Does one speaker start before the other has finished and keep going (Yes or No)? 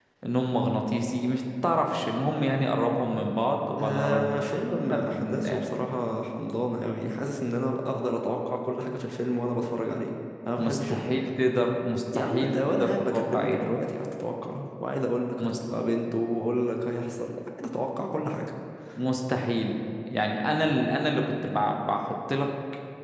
Yes